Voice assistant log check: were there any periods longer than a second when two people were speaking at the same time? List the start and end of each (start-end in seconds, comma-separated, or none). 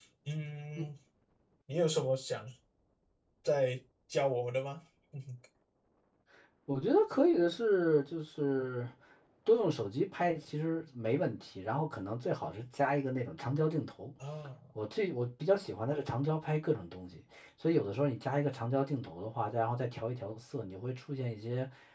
none